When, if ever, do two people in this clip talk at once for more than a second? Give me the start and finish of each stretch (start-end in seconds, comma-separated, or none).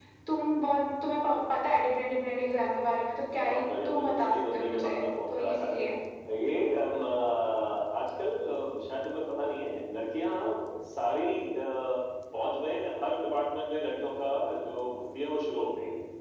3.4-5.8